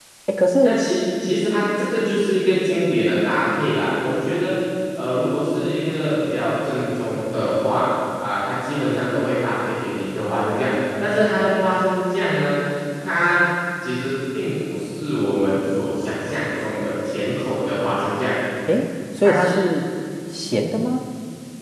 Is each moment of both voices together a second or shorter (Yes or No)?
Yes